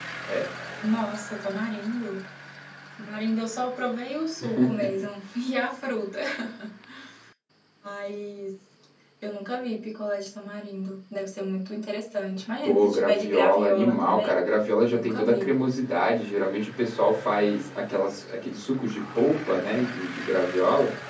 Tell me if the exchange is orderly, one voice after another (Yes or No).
No